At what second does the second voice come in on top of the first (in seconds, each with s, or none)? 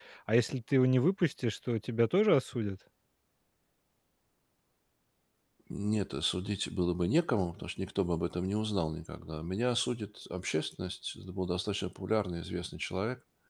none